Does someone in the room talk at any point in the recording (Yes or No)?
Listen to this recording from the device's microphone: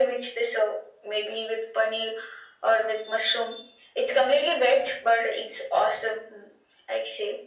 No